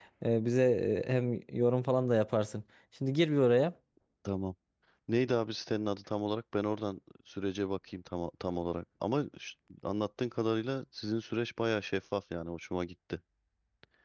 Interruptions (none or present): none